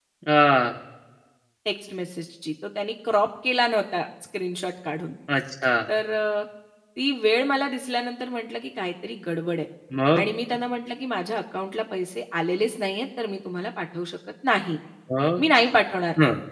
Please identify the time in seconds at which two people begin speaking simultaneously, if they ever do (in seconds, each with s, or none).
none